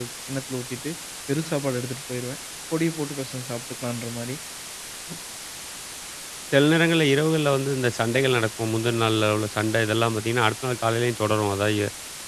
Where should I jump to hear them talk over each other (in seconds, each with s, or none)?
none